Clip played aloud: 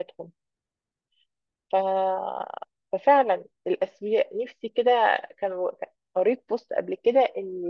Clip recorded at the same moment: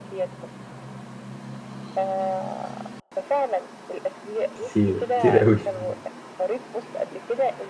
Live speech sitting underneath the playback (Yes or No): No